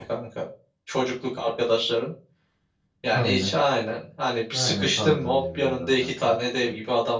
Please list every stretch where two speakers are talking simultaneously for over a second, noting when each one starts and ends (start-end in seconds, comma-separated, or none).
4.5-6.1